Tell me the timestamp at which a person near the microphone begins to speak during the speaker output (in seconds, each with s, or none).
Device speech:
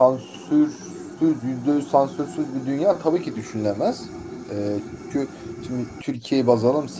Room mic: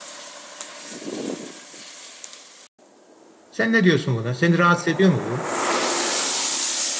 3.5 s